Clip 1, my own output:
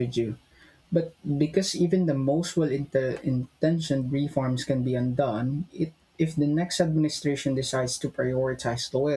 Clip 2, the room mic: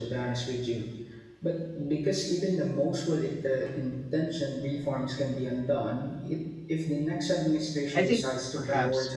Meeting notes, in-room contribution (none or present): present